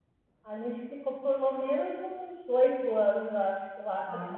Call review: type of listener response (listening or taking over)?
listening